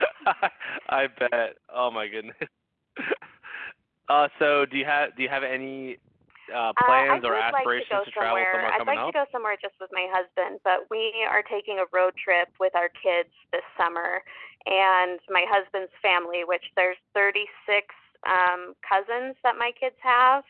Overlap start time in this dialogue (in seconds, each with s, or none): 6.8 s